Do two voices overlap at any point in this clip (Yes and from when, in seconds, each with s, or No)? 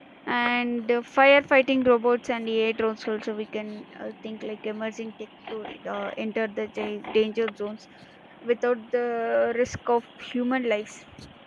No